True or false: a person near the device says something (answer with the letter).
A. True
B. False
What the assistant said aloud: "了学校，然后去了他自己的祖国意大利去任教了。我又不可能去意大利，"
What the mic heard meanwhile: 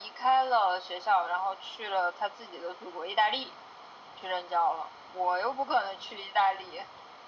B